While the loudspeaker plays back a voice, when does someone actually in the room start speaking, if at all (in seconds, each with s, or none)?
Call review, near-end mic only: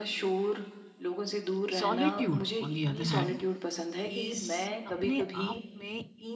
1.8 s